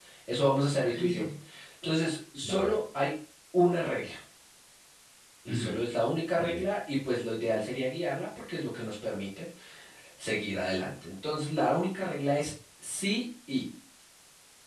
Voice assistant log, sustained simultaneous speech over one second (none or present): none